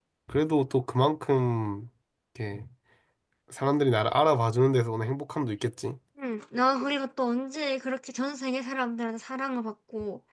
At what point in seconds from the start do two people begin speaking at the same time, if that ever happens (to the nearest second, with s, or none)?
none